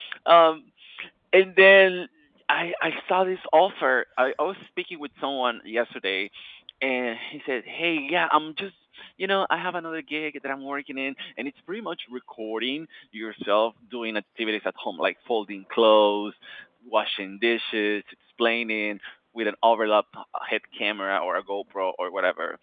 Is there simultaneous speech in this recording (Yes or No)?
No